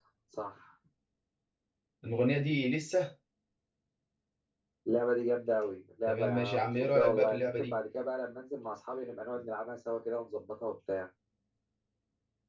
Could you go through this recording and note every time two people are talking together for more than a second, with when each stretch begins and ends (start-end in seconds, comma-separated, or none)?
6.1-7.8